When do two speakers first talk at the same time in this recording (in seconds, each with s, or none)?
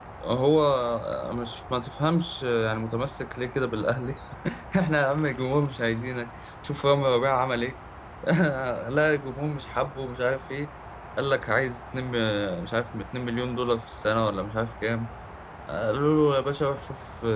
none